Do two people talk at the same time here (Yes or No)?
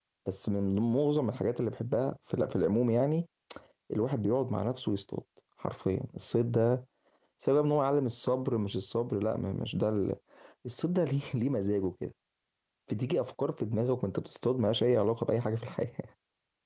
No